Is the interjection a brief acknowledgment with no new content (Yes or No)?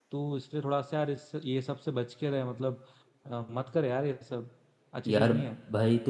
No